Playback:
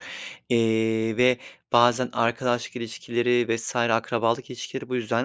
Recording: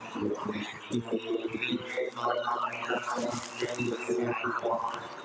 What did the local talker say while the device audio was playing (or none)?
none